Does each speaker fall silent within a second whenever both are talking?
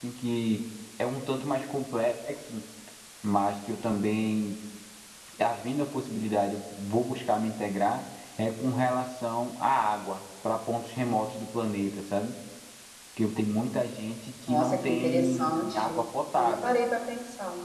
No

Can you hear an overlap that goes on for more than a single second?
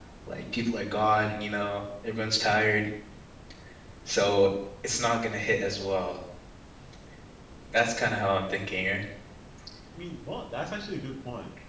No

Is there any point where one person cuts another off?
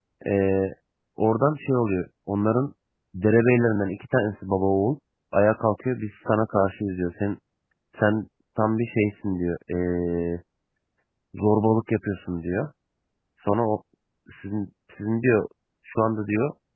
No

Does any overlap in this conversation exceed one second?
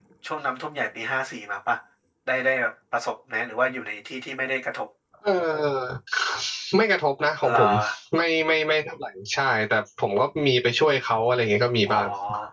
No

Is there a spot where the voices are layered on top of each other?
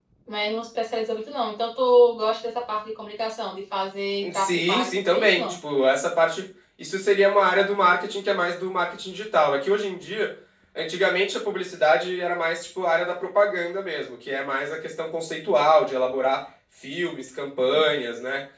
Yes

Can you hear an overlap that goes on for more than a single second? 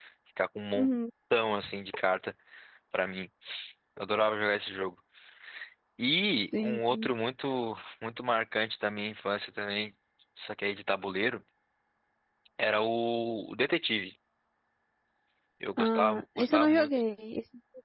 Yes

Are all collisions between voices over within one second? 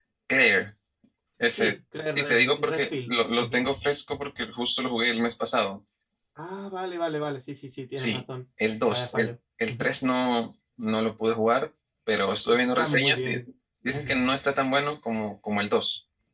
No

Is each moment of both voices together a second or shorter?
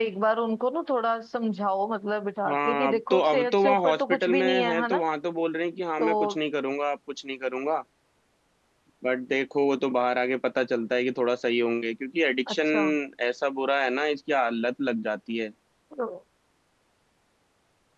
No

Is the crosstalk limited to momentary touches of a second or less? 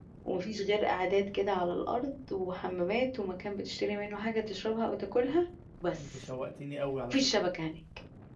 Yes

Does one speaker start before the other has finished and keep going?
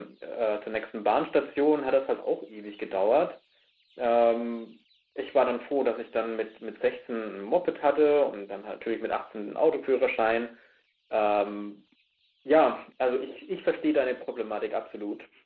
No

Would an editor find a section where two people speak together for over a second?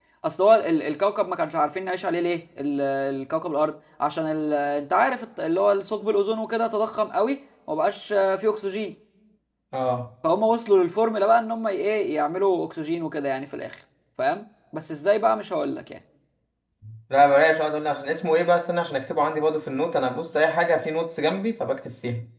No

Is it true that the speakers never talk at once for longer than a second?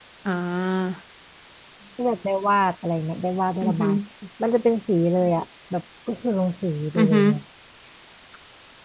Yes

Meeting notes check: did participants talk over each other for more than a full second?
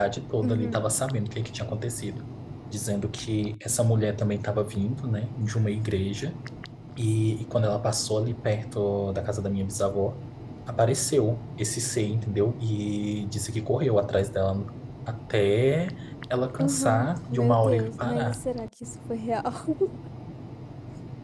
Yes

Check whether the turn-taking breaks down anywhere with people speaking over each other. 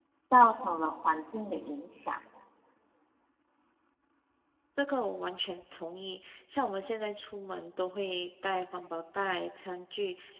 No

